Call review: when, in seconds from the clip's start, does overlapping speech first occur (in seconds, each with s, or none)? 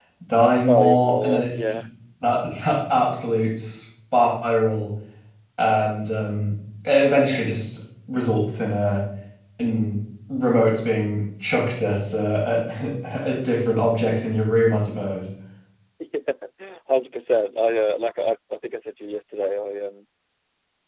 0.7 s